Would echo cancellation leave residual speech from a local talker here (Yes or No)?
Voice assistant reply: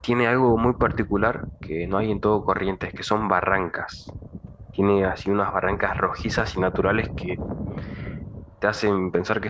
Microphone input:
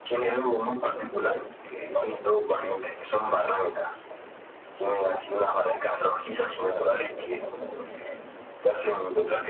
No